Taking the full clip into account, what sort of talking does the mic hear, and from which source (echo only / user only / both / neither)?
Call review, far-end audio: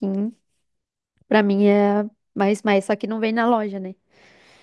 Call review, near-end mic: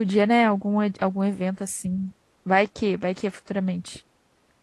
user only